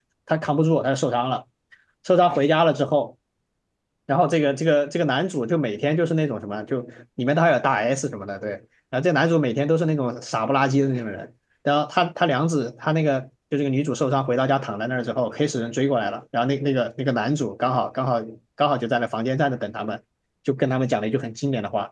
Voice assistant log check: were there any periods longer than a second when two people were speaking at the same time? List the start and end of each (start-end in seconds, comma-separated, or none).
none